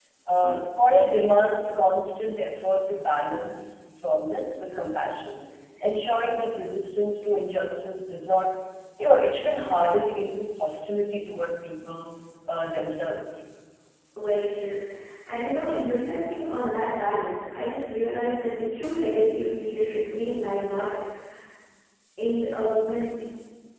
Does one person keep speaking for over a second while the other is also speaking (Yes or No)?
No